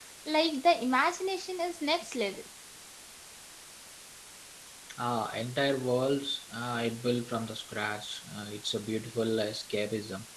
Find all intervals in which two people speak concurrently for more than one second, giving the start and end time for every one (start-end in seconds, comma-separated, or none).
none